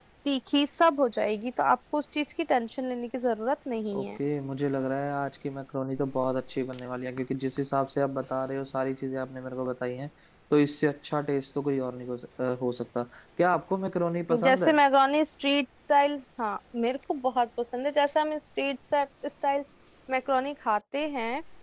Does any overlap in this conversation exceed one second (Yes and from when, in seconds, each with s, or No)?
No